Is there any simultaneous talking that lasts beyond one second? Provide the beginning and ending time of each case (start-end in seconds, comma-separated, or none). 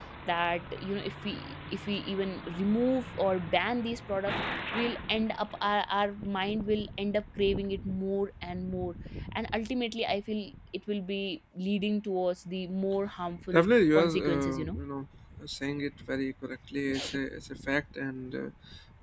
13.5-14.8